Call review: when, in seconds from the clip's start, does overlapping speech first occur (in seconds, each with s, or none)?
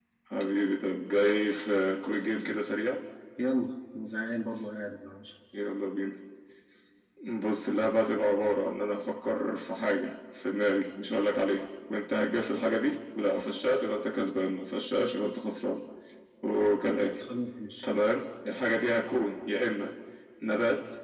none